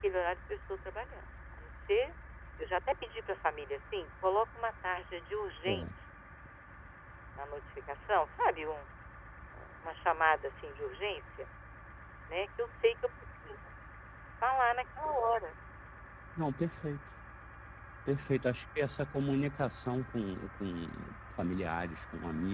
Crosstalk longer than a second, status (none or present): none